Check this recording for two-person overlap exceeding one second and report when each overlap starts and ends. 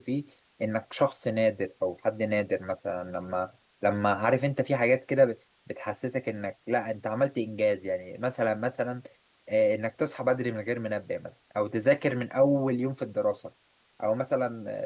none

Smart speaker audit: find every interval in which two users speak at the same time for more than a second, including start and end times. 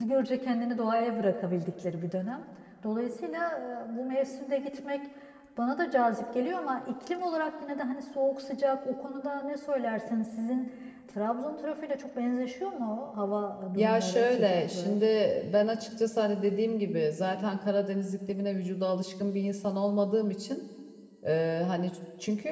13.8-15.0

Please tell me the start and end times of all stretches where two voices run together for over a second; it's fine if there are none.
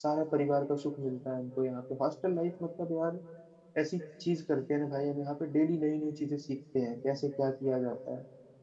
none

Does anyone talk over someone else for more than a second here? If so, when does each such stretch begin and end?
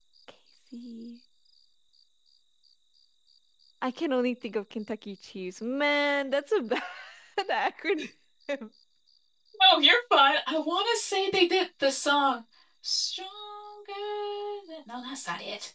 none

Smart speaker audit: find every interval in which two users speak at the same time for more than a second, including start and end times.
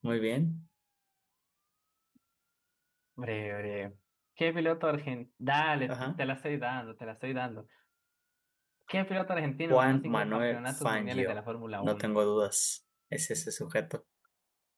9.7-11.3

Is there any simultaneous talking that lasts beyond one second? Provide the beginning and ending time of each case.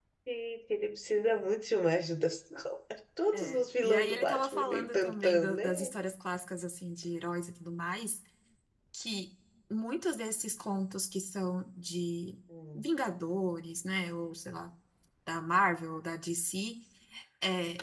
3.3-5.9

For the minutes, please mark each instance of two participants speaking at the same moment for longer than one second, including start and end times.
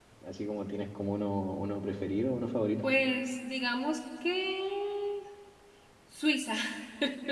none

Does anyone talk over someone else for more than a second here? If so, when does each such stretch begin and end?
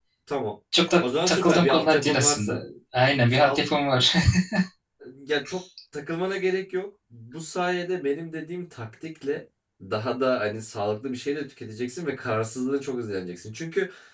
1.0-2.5

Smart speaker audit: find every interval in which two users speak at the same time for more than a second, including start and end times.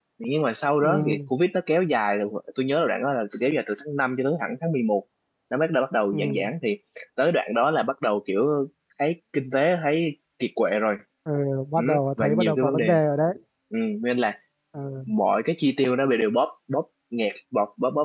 11.8-13.0

